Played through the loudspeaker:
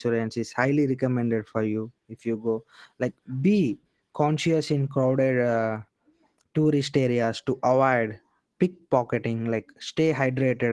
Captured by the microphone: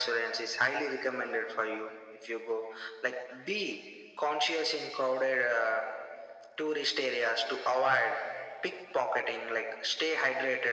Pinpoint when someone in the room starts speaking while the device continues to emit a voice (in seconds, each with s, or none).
none